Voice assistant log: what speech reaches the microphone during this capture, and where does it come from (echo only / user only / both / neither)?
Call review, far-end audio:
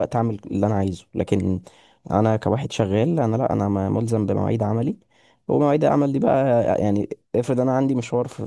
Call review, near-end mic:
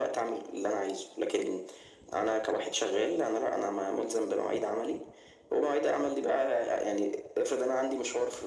echo only